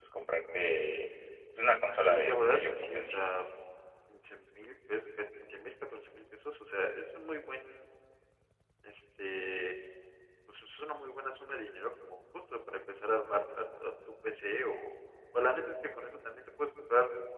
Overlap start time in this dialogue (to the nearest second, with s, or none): 2 s